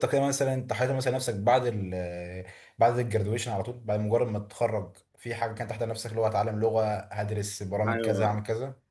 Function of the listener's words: taking over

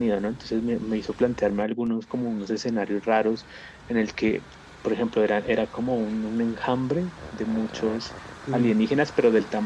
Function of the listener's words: listening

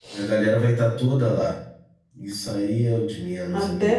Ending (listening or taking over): taking over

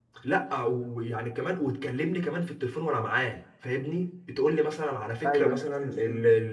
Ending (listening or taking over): listening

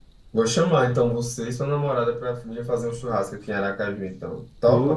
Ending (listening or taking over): taking over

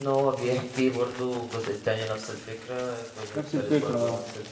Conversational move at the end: listening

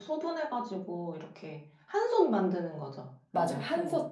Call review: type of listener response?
taking over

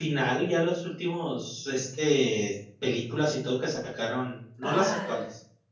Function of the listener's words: listening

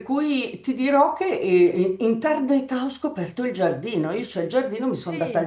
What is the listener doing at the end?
listening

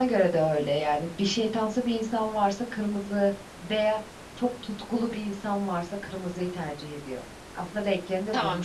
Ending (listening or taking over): taking over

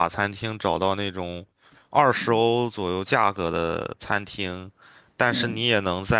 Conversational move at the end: listening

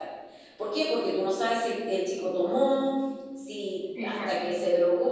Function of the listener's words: listening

